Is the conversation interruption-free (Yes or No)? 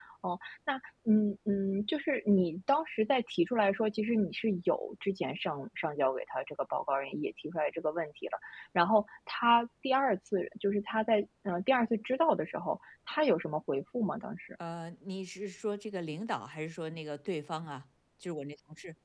Yes